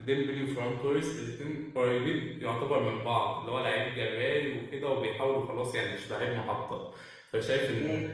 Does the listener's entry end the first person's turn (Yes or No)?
No